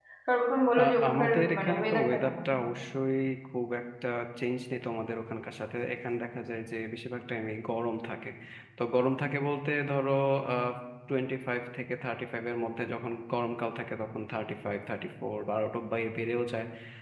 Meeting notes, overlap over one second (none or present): present